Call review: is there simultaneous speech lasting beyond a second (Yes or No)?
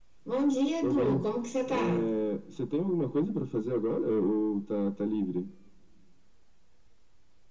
No